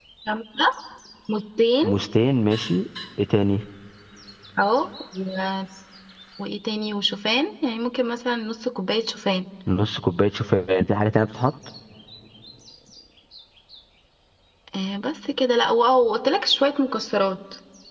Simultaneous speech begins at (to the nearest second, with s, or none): none